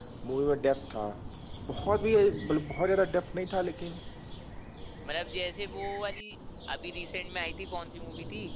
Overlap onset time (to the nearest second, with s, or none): none